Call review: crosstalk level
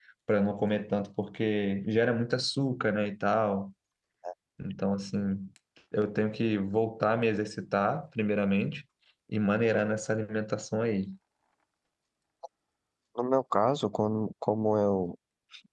none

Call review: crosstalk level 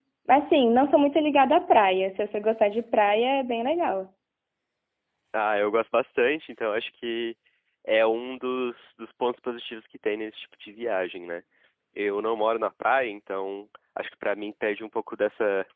none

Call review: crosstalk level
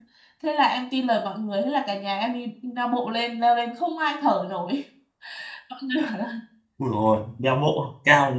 none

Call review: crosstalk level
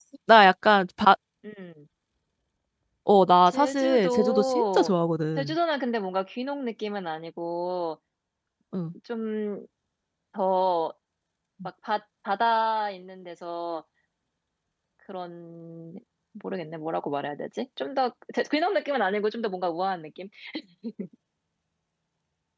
present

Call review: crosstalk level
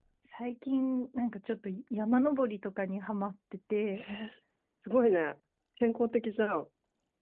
none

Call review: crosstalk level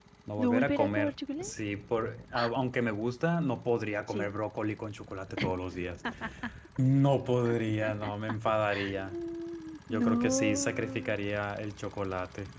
present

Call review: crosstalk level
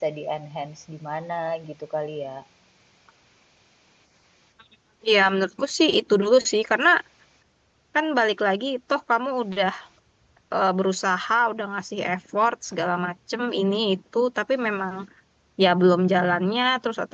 none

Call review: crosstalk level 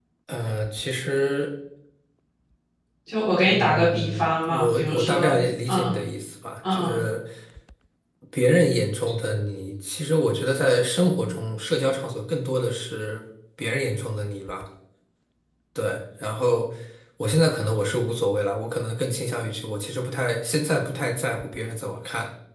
present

